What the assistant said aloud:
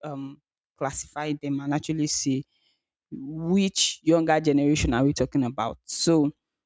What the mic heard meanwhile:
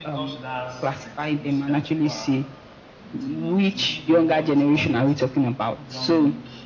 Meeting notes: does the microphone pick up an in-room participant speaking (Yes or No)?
Yes